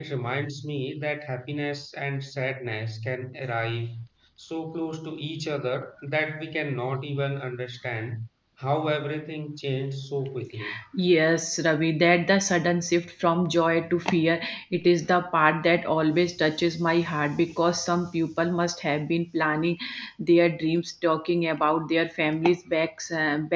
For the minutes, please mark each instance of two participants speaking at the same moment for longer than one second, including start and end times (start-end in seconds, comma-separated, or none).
none